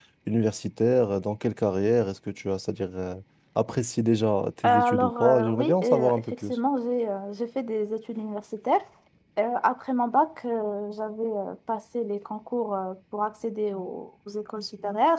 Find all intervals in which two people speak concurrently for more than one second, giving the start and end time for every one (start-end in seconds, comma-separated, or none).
4.7-6.6